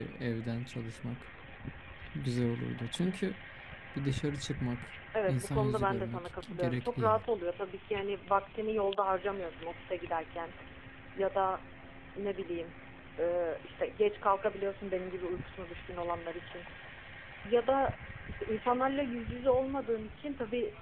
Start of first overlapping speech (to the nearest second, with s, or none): 5 s